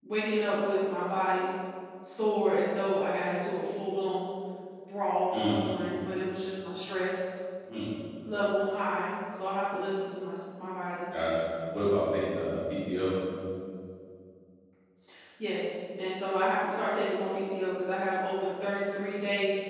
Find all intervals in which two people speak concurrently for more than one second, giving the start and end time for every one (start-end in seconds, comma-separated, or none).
none